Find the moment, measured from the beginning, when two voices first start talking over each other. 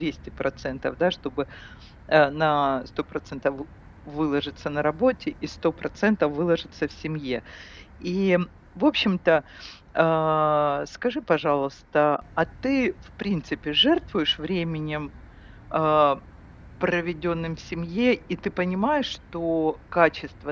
none

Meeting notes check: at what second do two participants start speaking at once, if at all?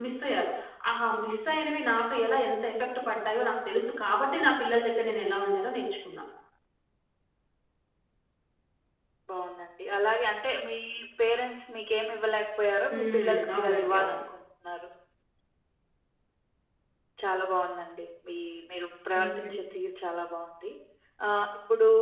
12.9 s

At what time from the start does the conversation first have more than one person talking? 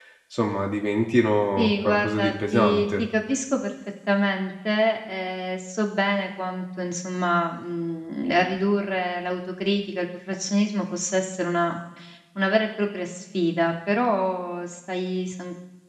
1.6 s

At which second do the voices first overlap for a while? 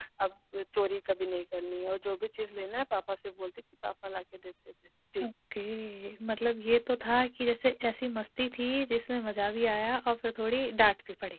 none

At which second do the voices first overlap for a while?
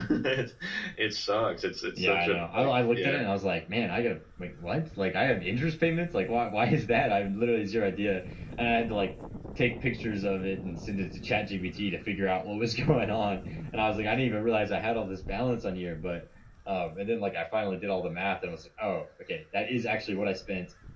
2.0 s

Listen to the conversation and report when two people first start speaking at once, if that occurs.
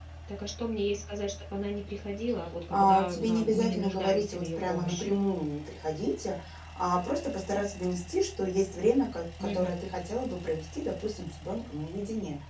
2.7 s

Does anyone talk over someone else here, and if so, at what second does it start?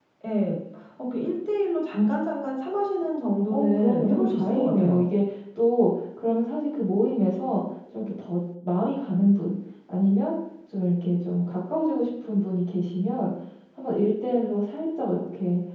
3.5 s

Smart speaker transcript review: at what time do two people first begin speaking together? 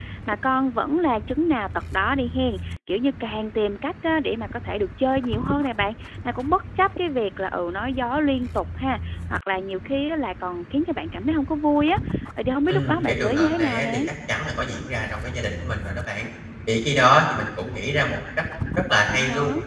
12.7 s

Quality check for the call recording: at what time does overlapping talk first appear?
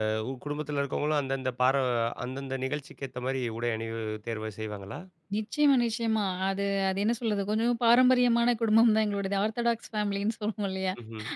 none

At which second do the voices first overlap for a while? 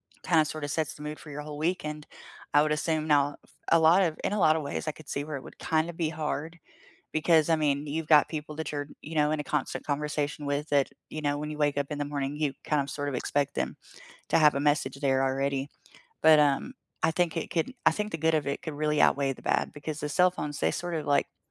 none

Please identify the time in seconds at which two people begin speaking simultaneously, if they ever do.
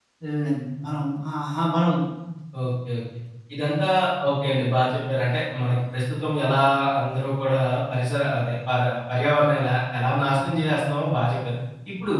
none

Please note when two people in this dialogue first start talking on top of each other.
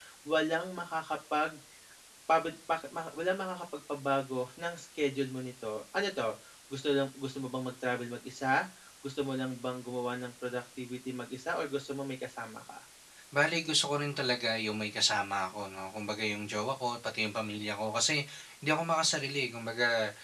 none

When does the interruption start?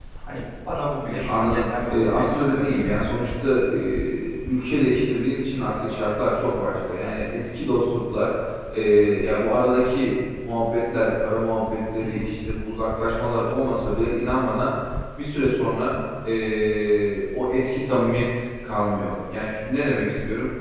1.2 s

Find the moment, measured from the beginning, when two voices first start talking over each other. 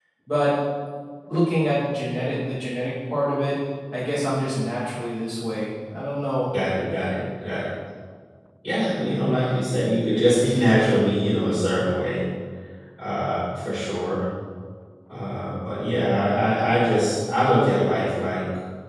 none

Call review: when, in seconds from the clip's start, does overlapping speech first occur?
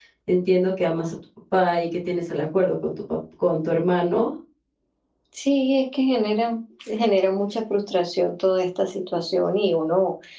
none

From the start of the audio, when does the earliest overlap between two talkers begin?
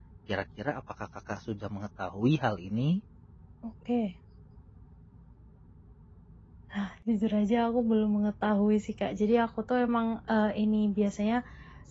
none

